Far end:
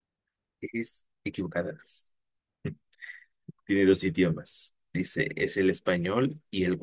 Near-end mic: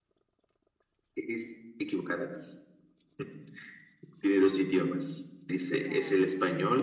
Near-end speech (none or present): present